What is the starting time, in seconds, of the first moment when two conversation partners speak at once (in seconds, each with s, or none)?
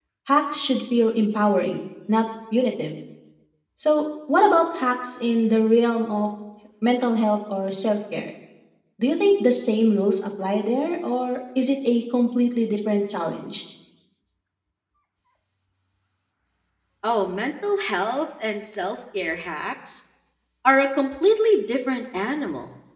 none